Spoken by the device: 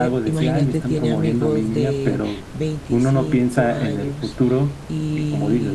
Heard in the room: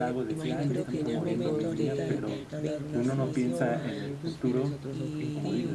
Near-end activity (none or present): present